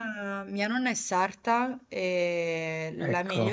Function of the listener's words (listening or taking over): listening